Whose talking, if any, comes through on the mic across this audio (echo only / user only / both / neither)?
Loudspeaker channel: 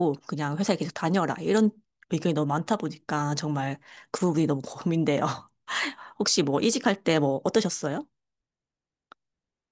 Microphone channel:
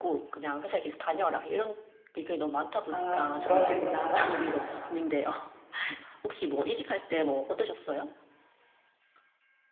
both